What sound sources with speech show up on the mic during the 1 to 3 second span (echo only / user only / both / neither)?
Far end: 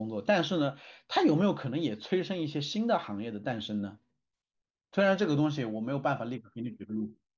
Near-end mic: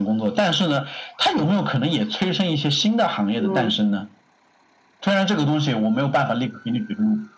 echo only